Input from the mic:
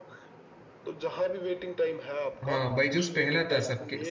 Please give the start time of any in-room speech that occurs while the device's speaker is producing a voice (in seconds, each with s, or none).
2.4 s